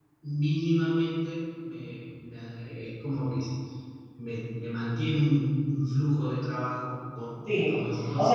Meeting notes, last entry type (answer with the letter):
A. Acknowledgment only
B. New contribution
B